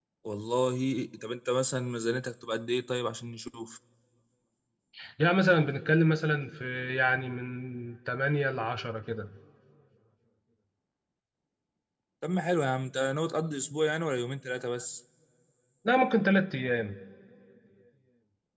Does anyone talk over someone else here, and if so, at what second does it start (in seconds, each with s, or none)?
none